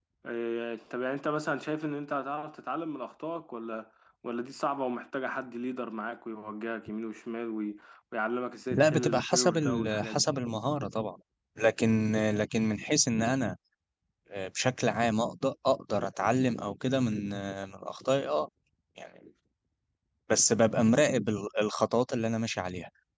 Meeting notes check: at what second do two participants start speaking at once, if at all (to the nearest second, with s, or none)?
9 s